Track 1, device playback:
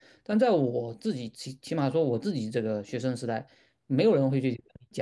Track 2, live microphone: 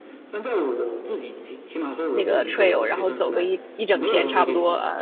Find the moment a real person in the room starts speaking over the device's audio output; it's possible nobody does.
2.1 s

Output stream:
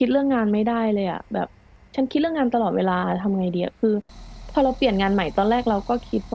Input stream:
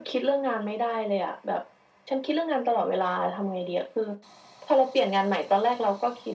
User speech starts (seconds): none

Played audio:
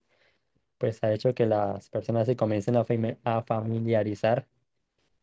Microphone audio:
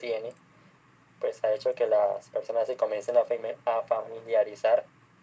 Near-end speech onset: none

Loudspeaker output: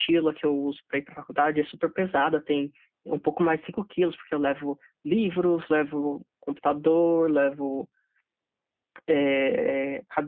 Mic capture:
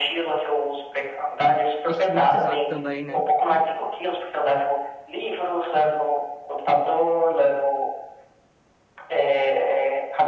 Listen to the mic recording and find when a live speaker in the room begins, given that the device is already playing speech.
1.8 s

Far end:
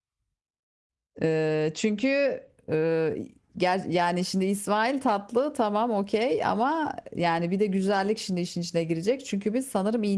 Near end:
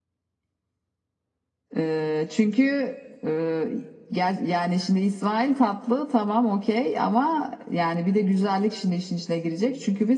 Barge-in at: none

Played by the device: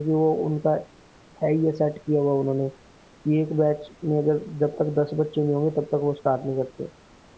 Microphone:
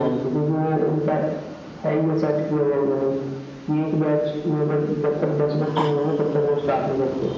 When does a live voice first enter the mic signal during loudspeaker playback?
none

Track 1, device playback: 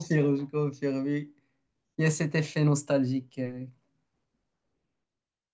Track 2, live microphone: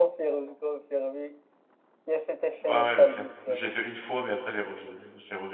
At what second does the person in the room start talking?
2.6 s

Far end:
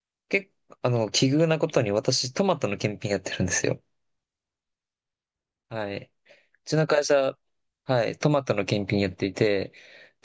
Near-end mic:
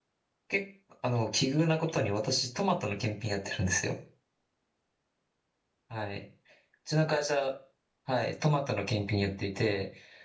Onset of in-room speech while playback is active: none

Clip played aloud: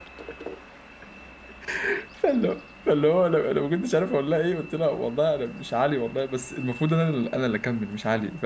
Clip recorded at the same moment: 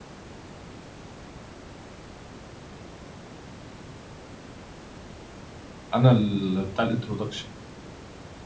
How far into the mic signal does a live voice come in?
5.9 s

